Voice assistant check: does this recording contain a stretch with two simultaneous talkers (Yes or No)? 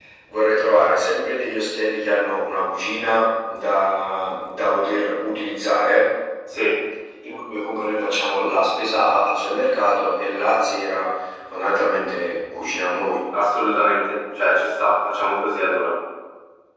No